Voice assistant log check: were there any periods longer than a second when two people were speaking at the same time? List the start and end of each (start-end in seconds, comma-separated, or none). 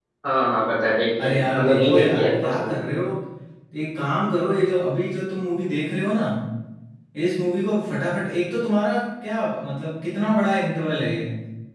1.2-2.8